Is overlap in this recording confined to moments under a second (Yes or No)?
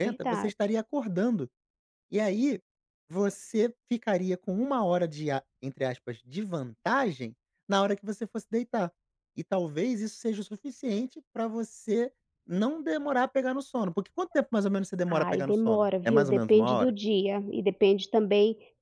No